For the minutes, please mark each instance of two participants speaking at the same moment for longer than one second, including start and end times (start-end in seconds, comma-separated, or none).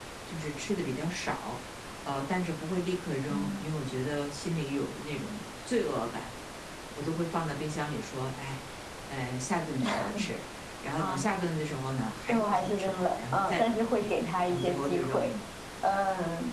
12.3-15.3